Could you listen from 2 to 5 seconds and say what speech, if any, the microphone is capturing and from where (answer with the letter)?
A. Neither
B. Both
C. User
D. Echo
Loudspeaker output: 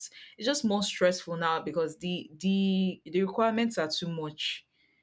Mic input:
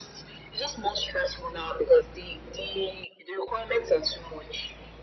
D